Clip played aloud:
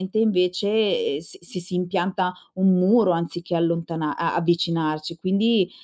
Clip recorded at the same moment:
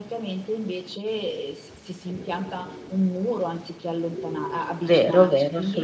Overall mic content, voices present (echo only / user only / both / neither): both